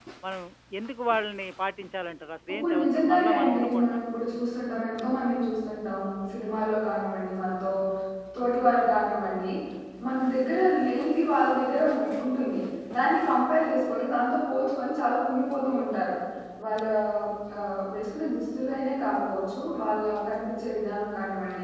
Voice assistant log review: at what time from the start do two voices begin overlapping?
2.5 s

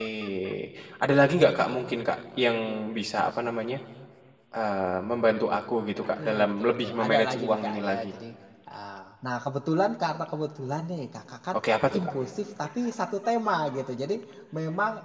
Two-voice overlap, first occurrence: 6.2 s

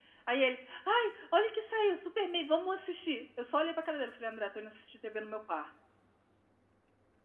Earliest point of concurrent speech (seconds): none

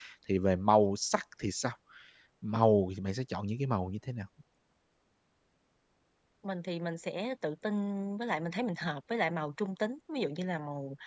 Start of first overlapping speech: none

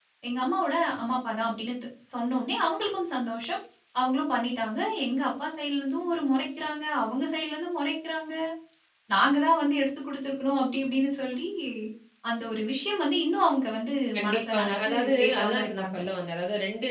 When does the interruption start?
14.1 s

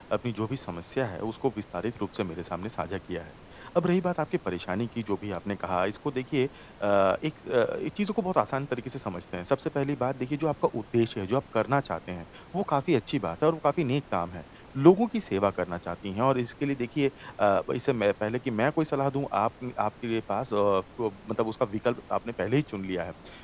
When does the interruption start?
none

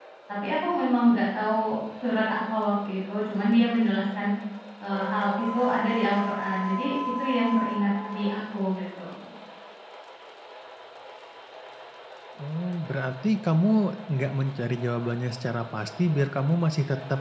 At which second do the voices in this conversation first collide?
none

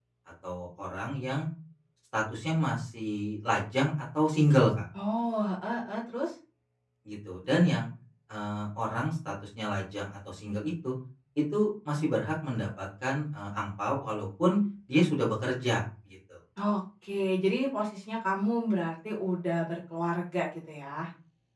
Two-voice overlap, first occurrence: none

